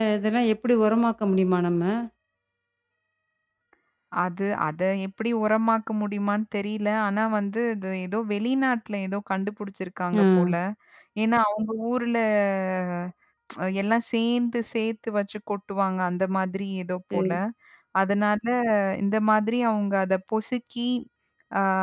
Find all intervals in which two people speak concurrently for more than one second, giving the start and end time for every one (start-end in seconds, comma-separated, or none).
none